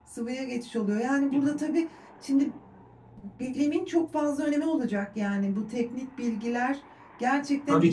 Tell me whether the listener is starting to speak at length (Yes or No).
Yes